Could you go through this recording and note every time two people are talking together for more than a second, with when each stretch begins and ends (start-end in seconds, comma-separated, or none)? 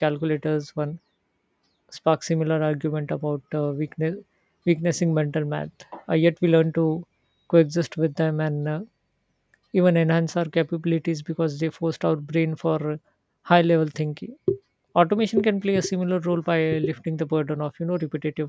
none